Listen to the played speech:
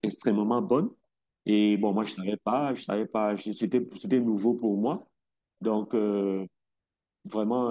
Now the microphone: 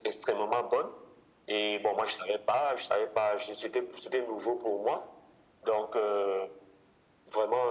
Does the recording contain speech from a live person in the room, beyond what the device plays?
No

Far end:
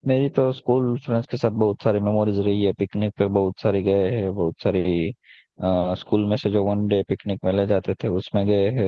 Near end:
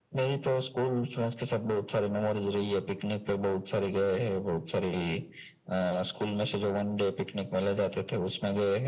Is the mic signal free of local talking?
Yes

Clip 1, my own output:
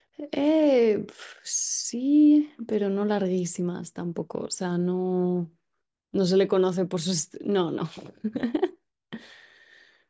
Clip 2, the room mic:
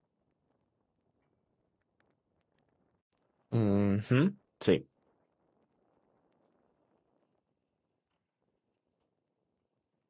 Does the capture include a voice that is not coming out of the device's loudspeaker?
Yes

